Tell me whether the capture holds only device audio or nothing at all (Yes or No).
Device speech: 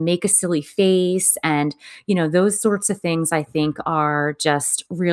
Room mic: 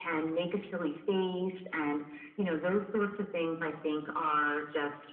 Yes